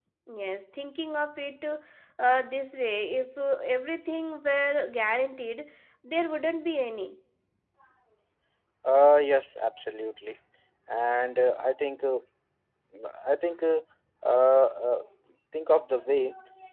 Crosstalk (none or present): none